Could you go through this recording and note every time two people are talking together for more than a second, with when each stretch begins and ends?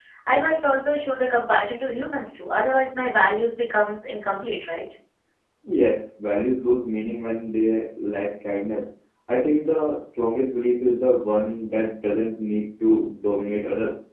none

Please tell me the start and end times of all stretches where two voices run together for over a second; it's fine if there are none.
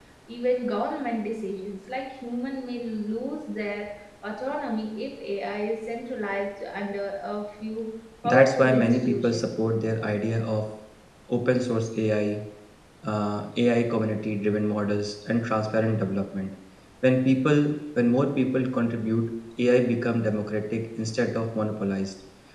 8.2-9.5

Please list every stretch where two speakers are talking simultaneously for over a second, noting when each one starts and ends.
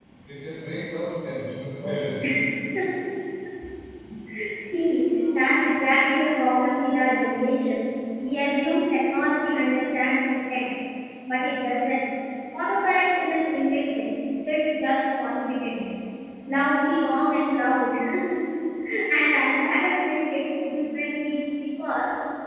none

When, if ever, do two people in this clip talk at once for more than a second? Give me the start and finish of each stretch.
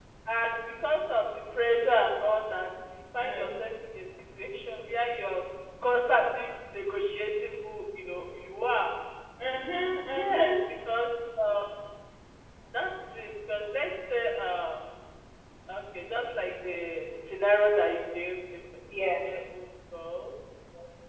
none

